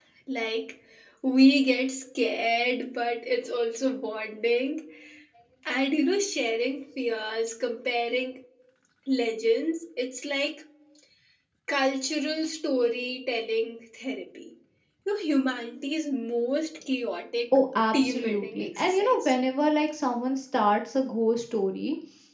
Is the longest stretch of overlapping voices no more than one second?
No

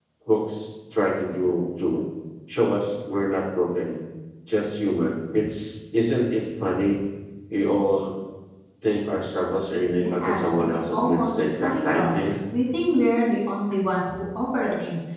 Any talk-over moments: Yes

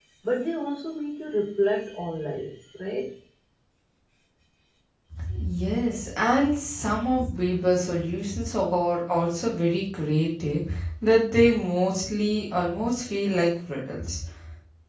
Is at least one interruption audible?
No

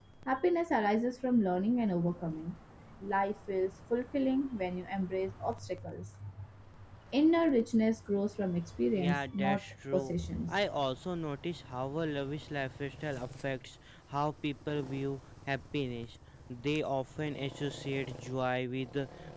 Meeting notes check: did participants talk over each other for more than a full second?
Yes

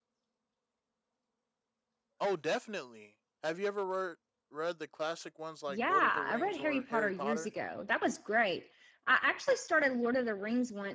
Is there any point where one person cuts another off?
Yes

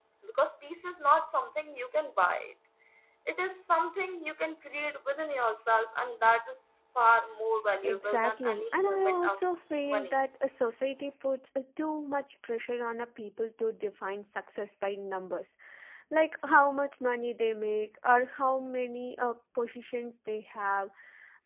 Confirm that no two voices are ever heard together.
No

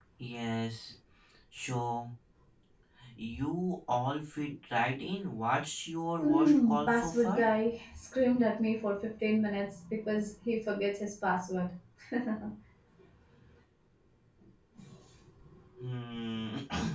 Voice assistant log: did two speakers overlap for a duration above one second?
Yes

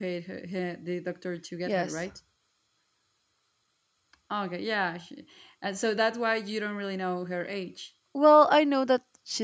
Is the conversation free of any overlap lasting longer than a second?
Yes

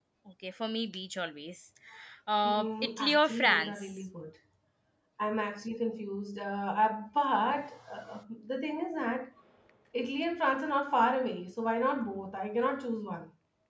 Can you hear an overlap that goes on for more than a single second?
Yes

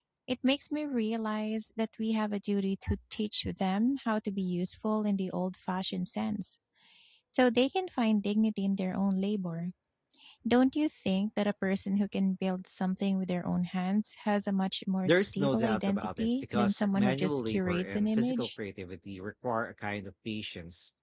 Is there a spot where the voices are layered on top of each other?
Yes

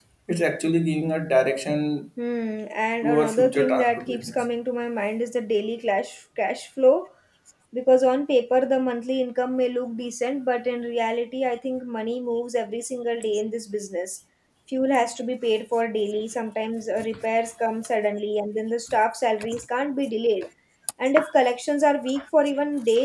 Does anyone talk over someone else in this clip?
Yes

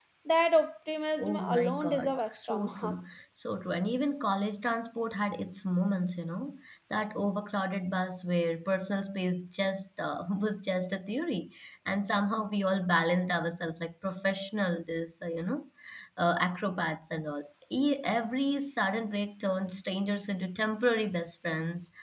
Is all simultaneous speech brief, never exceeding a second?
No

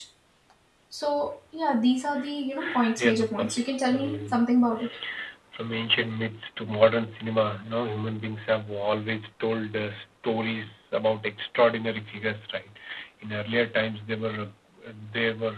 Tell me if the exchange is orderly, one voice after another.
No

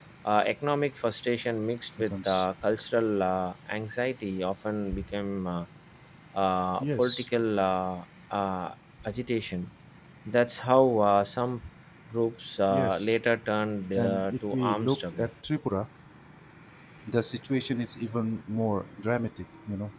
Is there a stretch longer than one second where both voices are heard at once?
Yes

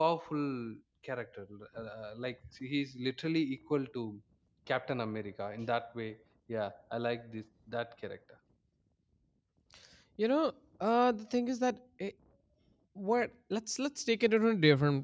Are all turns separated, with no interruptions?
Yes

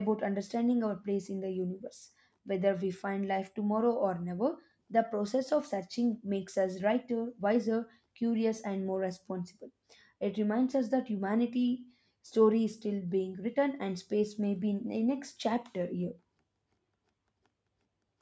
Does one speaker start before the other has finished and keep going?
No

